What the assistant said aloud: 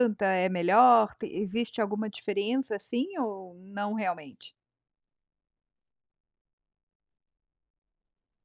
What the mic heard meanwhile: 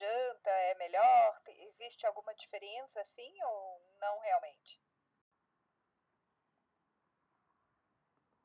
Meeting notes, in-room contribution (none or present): none